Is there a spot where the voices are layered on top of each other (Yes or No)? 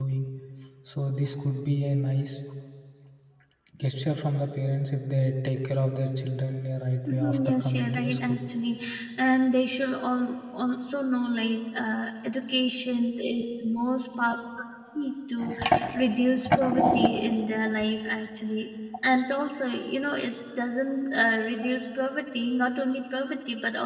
Yes